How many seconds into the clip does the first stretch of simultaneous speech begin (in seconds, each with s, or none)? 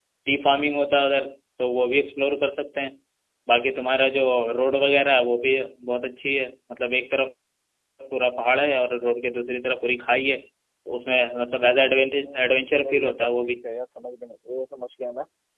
12.2 s